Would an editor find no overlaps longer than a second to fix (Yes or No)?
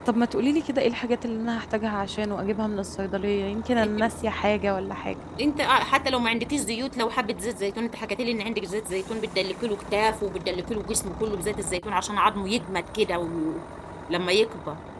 Yes